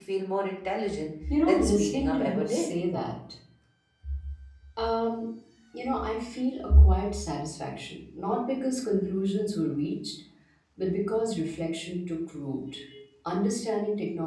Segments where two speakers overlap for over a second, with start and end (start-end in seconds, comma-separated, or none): 1.5-2.8